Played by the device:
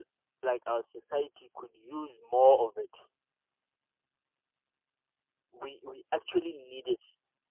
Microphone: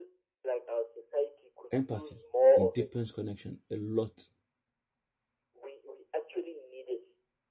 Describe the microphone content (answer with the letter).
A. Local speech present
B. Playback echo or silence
A